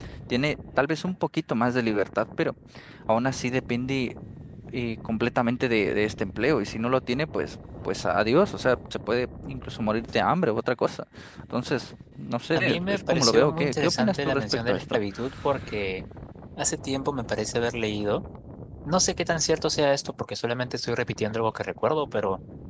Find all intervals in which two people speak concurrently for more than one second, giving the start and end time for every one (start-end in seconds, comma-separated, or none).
12.5-15.0